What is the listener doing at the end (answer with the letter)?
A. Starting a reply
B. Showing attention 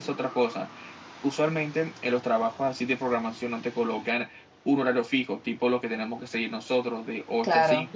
B